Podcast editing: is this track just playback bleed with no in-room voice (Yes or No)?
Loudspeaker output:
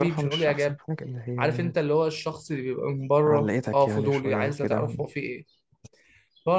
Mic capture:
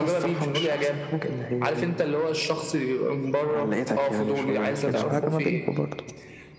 No